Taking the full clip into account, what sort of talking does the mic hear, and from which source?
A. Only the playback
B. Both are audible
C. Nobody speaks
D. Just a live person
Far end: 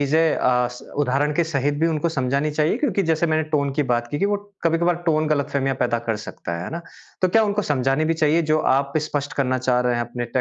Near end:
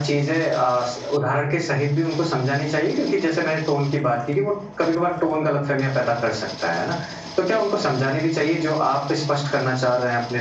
A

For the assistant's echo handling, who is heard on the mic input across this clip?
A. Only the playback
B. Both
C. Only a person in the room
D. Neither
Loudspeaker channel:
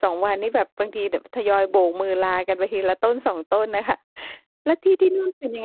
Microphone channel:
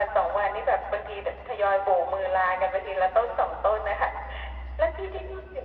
A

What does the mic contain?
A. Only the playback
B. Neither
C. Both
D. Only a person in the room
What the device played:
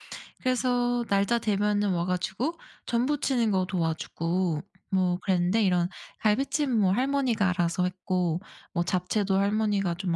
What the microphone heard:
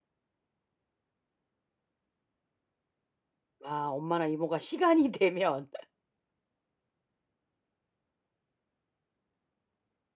D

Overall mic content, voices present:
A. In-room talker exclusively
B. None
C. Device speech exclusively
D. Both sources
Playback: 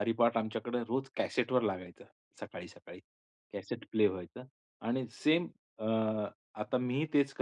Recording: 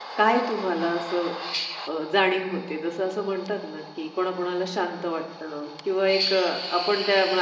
A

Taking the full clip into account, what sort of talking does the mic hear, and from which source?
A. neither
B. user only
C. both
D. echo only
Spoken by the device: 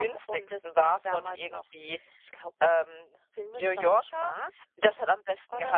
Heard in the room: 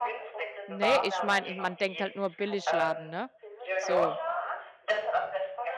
C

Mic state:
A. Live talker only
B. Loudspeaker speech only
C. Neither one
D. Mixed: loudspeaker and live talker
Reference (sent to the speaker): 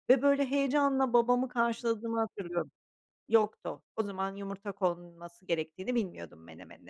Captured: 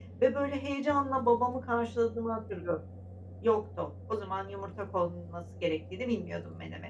B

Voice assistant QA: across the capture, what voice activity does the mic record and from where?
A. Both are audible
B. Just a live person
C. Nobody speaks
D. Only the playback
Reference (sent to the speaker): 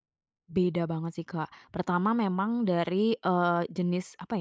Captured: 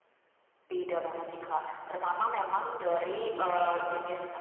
A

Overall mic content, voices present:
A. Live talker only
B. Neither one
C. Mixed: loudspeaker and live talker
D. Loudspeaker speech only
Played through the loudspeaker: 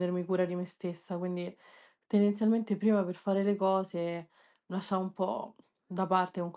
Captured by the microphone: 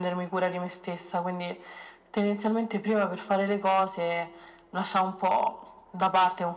D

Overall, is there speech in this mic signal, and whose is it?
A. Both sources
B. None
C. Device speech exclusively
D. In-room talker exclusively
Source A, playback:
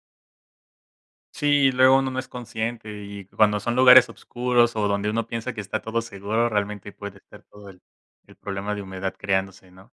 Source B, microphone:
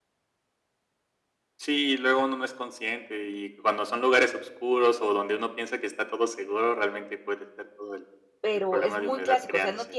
A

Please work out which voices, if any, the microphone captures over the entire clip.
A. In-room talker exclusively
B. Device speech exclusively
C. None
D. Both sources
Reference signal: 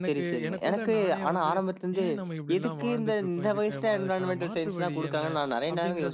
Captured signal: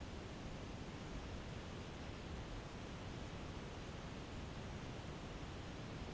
C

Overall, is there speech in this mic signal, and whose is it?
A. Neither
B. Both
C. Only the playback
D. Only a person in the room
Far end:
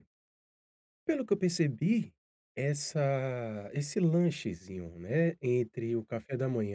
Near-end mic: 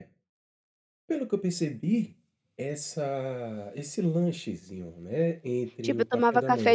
B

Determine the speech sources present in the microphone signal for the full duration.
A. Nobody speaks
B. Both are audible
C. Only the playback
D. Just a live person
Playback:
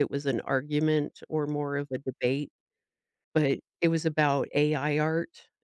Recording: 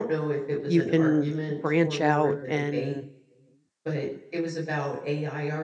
B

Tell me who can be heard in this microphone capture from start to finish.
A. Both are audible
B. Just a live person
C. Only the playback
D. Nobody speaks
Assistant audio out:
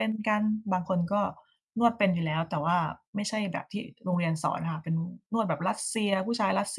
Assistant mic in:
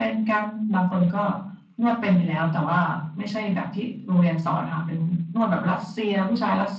C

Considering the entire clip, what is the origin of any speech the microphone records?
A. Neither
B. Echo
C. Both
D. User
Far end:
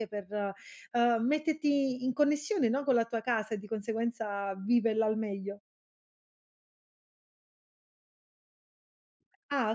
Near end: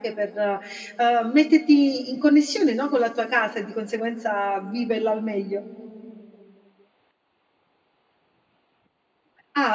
B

